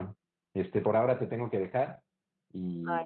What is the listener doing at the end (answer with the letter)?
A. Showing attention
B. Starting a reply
A